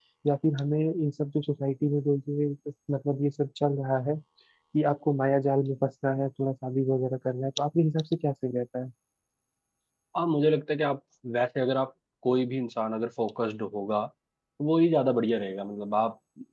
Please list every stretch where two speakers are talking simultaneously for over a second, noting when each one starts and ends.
none

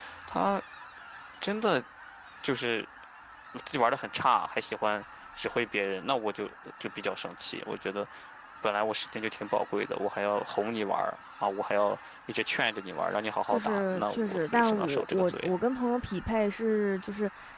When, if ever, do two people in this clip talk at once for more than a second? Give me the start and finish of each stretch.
13.5-15.6

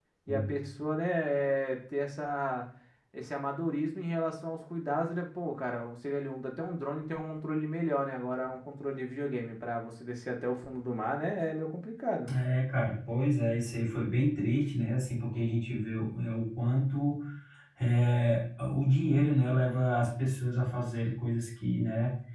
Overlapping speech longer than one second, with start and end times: none

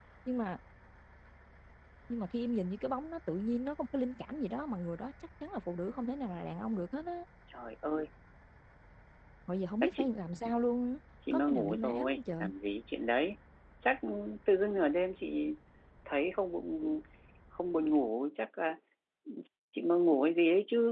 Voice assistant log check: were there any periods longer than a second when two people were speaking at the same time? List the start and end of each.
11.3-12.5

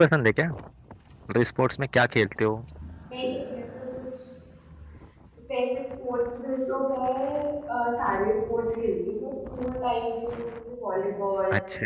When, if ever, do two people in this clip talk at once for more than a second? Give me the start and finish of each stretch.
none

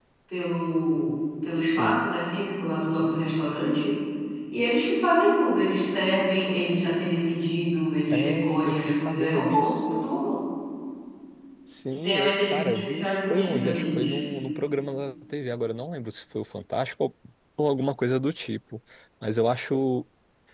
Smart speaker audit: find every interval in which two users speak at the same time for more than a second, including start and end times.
8.1-10.1, 12.0-14.2

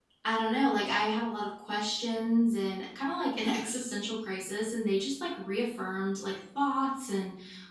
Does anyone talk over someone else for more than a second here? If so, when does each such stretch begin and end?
none

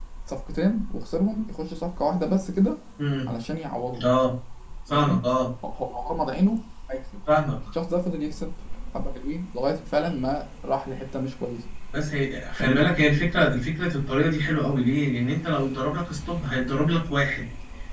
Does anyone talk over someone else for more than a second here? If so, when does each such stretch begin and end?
none

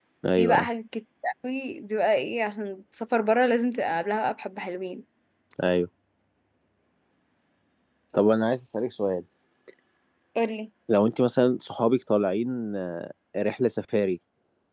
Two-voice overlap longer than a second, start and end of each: none

